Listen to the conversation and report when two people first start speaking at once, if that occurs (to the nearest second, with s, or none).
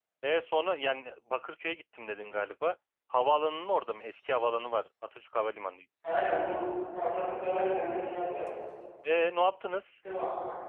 none